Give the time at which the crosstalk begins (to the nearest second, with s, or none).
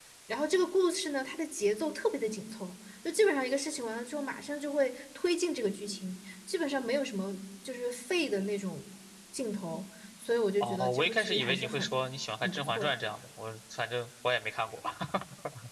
11 s